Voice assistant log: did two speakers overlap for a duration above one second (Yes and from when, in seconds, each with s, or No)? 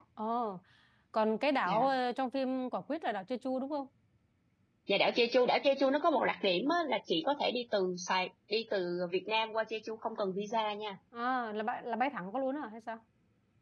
No